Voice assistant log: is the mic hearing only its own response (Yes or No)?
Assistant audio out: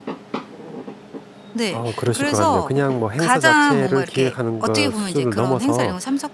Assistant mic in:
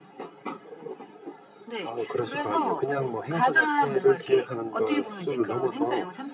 Yes